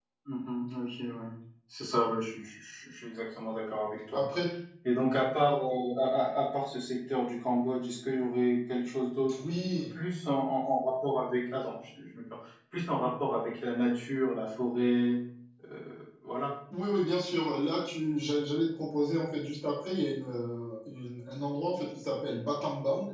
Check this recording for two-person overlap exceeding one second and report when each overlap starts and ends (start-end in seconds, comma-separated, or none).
none